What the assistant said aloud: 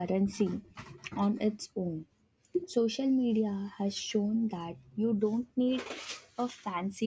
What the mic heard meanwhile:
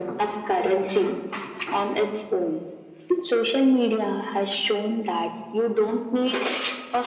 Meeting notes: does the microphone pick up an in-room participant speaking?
No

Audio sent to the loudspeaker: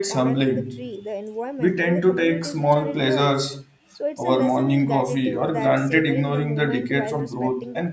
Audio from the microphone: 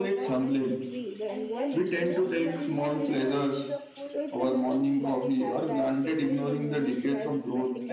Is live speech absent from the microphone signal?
No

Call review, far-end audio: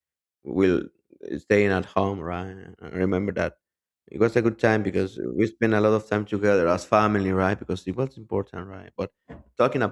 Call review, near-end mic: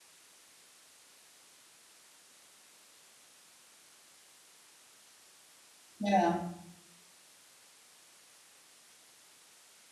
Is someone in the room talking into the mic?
Yes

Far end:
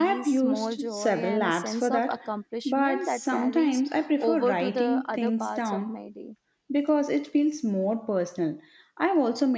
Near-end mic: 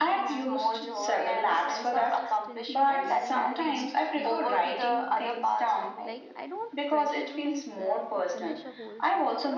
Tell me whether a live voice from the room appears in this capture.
Yes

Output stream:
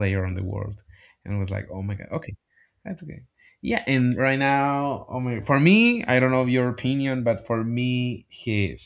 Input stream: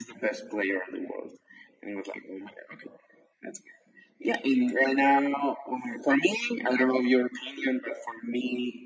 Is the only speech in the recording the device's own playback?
Yes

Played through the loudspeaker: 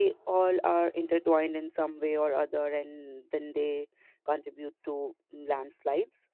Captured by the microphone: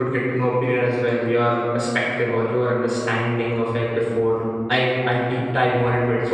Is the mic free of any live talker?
No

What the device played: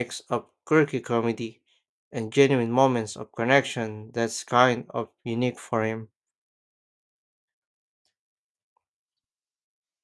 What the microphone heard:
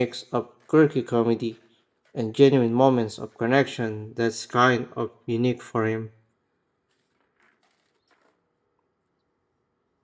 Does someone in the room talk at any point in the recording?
No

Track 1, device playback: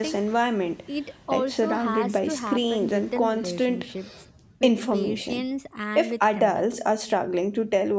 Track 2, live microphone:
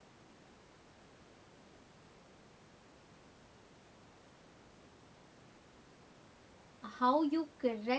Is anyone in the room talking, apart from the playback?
Yes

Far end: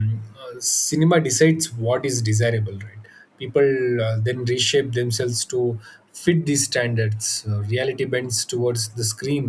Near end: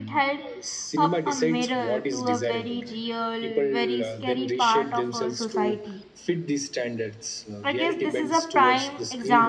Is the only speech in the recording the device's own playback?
No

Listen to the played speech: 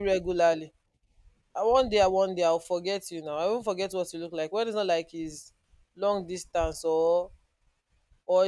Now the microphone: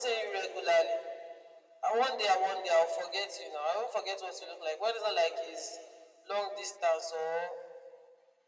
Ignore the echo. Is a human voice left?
No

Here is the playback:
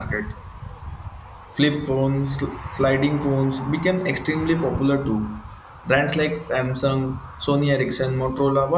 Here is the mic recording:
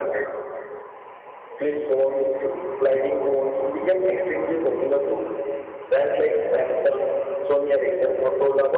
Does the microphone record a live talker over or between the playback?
No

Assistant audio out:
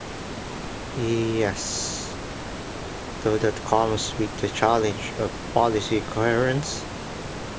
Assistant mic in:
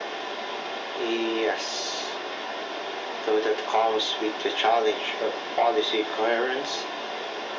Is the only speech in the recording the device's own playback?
Yes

